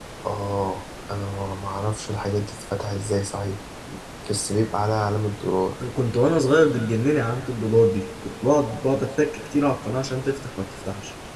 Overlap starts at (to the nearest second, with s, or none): none